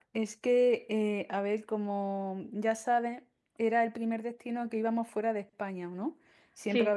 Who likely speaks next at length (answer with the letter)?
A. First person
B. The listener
A